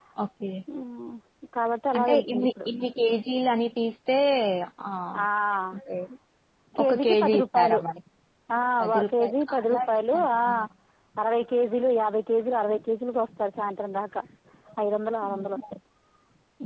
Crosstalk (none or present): present